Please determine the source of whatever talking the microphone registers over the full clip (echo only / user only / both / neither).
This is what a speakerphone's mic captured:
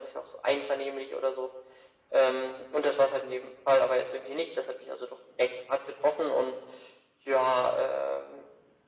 echo only